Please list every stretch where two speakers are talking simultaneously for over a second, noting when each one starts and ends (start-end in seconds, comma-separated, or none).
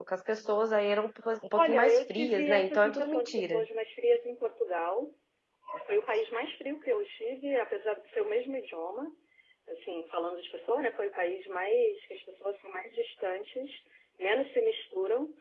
1.6-3.6